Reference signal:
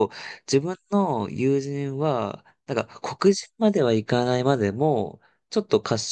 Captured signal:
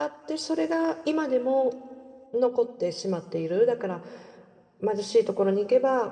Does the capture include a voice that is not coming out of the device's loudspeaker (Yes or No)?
Yes